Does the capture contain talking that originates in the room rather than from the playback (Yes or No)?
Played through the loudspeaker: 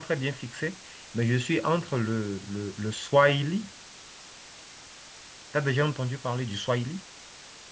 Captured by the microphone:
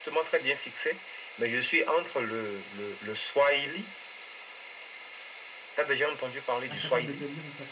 Yes